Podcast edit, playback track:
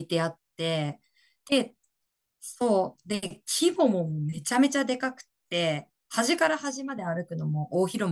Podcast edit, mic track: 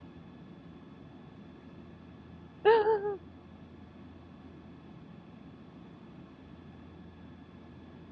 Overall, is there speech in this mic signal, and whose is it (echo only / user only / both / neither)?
user only